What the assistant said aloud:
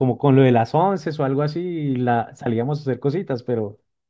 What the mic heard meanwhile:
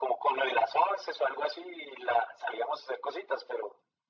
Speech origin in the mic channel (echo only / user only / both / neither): echo only